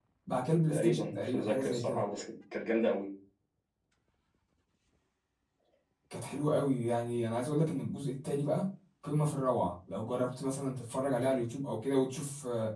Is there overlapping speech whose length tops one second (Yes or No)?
Yes